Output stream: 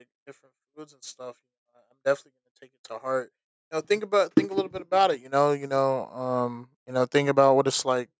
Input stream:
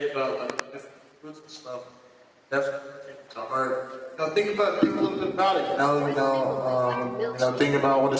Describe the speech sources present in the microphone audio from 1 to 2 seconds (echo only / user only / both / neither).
echo only